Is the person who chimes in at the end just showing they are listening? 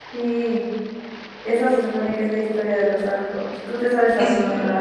No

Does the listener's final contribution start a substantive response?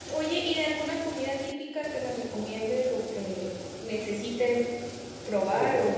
No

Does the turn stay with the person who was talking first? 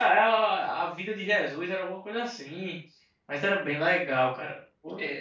Yes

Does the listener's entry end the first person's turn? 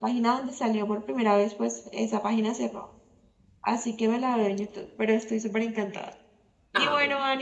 No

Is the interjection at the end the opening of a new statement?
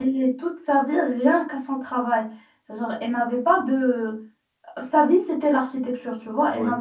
No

